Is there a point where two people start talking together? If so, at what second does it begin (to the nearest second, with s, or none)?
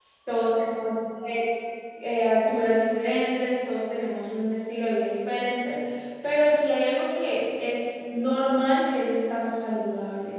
none